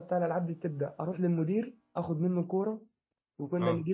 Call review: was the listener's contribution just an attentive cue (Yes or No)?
Yes